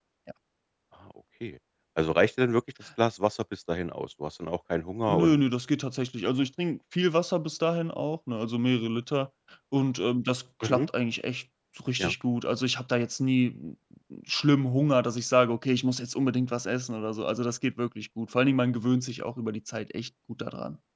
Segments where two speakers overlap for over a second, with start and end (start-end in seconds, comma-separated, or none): none